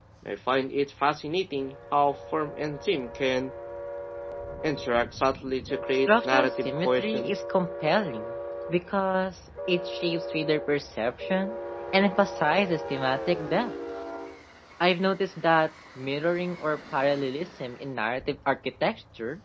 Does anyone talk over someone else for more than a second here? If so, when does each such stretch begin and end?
6.1-7.3

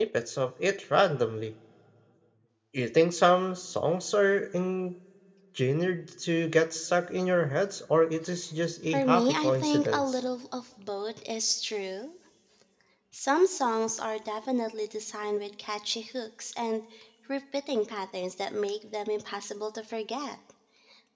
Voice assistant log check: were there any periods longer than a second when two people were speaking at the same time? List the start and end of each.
8.8-10.2

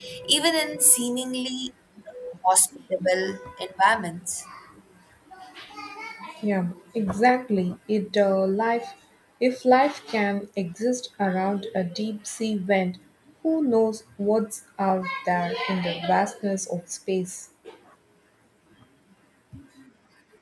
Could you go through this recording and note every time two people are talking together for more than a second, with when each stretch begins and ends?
none

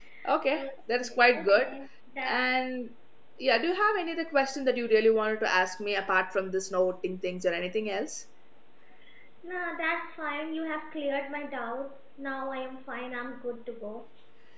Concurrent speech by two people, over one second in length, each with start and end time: 0.5-1.8

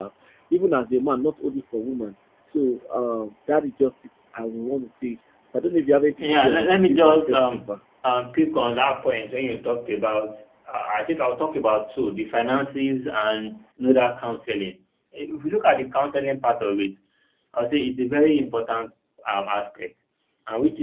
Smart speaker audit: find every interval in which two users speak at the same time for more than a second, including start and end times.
6.2-7.8

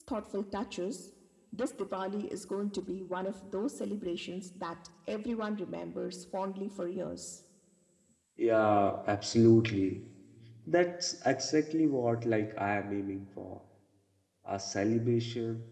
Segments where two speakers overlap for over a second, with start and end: none

